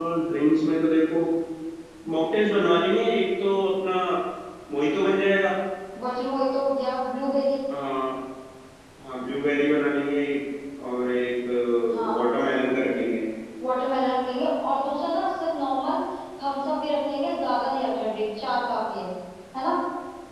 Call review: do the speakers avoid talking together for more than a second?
Yes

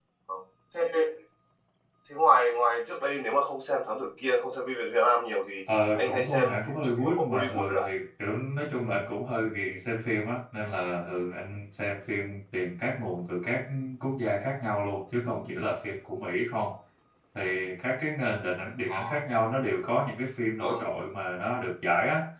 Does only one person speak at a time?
No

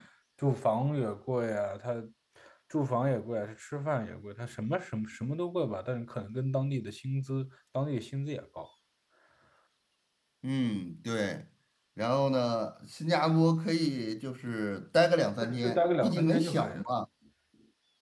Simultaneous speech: Yes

